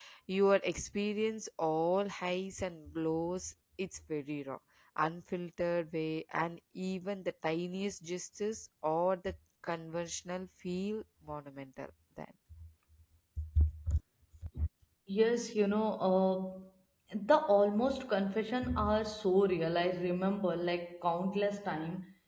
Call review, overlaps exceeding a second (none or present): none